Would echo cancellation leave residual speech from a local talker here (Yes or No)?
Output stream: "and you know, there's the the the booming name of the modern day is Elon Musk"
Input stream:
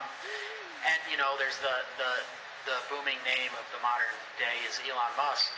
No